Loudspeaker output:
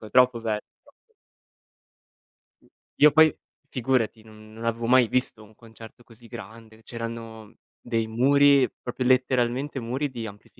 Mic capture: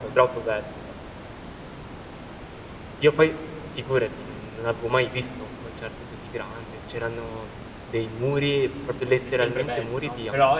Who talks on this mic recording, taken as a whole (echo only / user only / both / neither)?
both